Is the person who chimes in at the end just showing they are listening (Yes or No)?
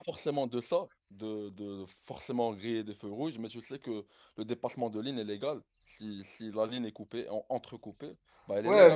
No